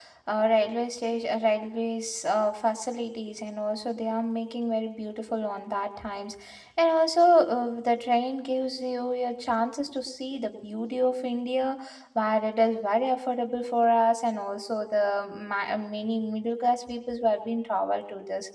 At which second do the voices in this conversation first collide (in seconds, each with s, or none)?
none